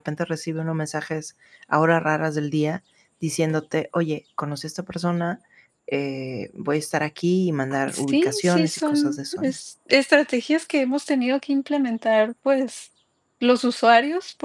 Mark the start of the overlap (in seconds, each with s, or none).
7.9 s